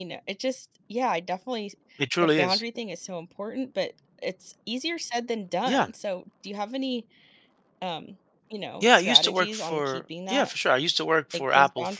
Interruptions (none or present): present